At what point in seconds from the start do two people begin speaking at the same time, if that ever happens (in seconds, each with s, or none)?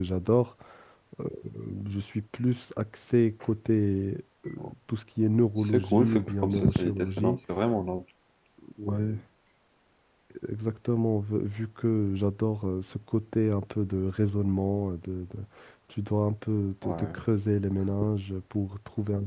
5.6 s